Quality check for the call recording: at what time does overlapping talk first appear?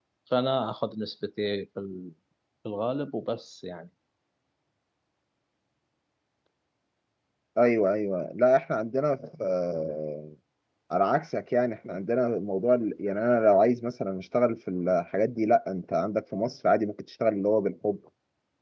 none

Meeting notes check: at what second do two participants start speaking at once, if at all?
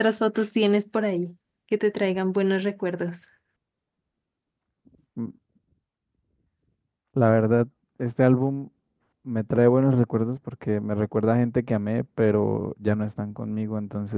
none

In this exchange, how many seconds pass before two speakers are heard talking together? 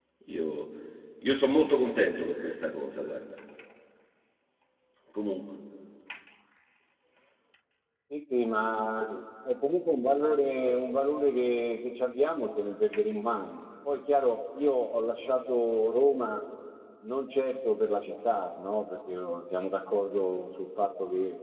none

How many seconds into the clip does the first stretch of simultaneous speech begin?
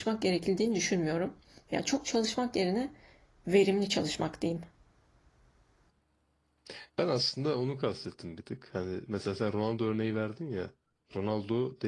none

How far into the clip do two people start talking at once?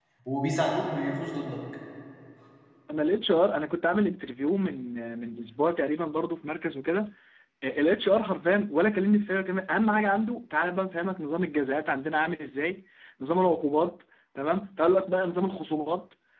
none

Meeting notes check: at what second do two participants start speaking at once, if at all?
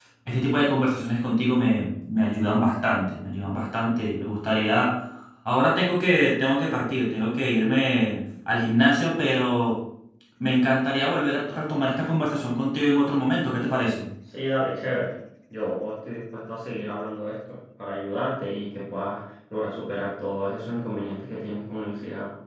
none

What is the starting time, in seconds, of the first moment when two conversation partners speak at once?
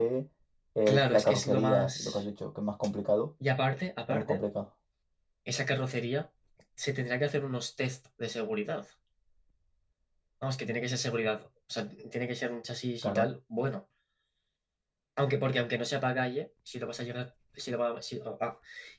0.9 s

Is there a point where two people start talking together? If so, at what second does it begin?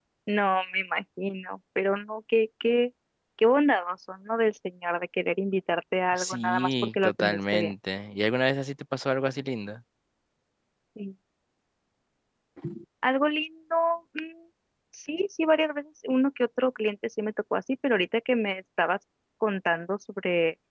6.1 s

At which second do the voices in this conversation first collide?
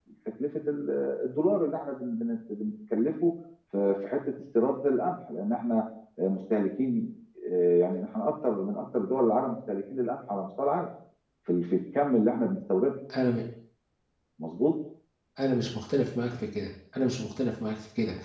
none

